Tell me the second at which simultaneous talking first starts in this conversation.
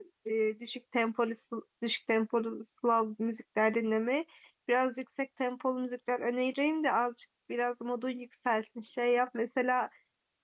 none

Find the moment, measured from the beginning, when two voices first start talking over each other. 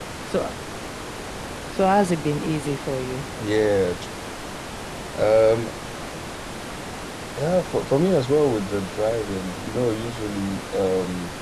none

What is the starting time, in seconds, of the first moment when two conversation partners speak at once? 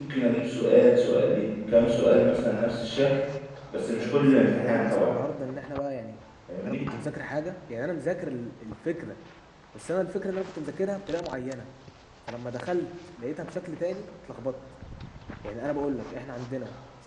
4.0 s

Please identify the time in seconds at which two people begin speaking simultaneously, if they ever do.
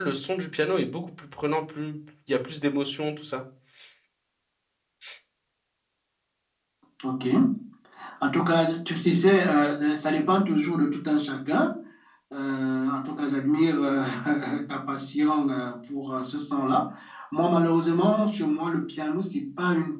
none

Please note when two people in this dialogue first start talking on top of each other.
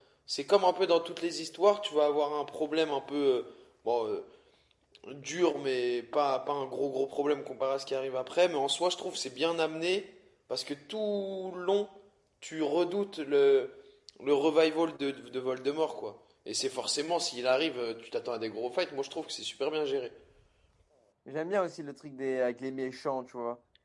none

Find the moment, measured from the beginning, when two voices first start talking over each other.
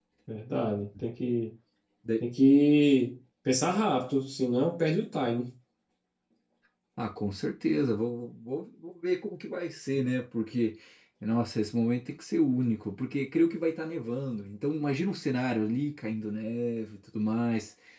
none

